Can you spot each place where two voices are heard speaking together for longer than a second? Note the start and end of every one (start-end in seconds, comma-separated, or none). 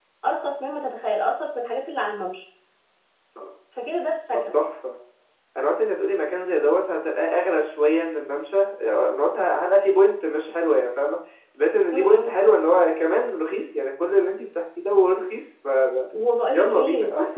none